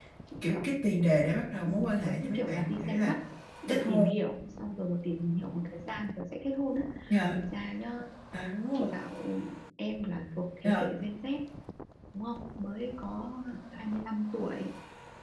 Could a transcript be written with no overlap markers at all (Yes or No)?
No